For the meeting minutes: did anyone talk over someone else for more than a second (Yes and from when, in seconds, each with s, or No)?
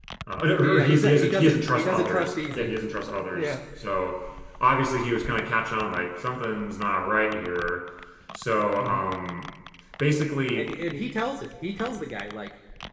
Yes, from 0.6 s